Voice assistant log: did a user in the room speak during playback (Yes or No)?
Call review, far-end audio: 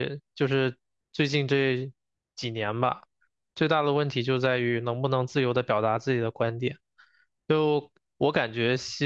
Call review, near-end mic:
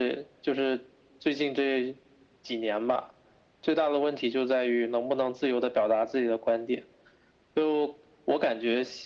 No